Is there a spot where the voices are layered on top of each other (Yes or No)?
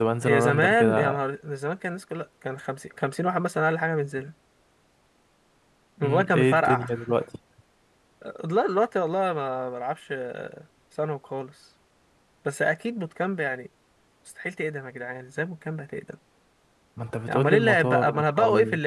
Yes